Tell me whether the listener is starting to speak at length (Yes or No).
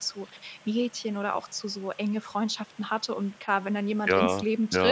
No